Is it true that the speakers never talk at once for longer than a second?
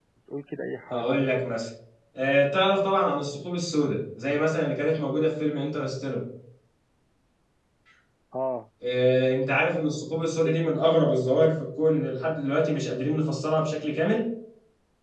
Yes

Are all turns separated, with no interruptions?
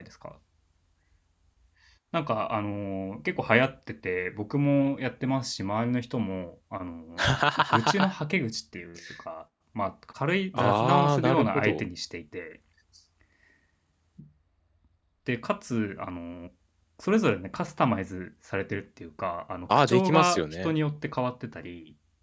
No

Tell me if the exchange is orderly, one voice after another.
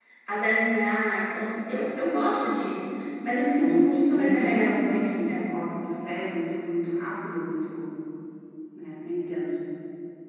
No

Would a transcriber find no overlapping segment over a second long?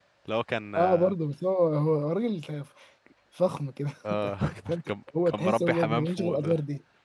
No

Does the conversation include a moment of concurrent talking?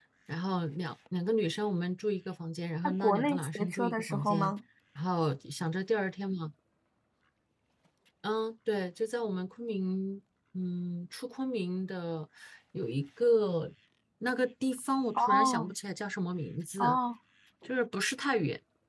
Yes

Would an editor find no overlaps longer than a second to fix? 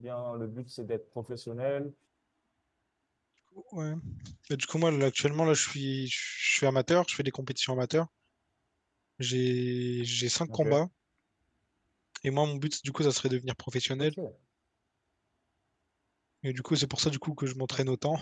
Yes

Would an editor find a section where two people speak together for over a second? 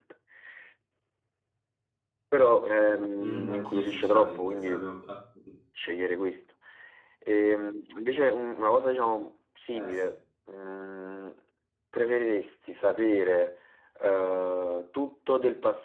Yes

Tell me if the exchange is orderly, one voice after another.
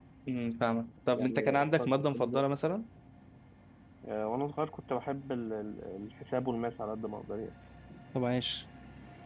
No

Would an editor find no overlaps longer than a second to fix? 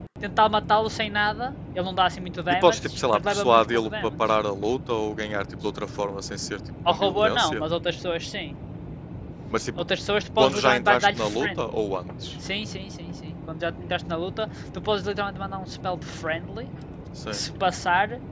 No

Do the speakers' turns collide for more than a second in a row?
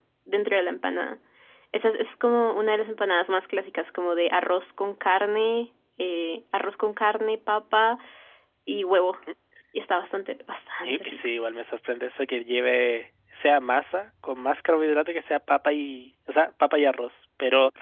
No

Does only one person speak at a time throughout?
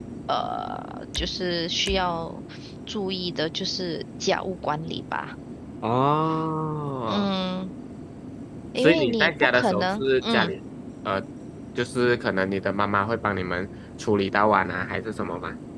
No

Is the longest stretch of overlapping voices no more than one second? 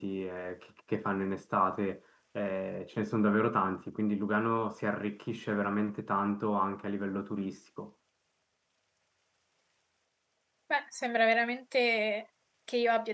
Yes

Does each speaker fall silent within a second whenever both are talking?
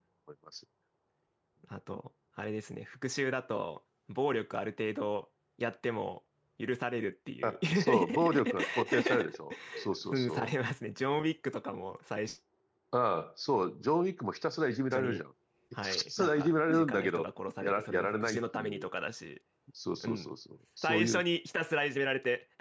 No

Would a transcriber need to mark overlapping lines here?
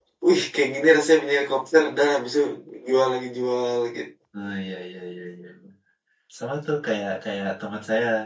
No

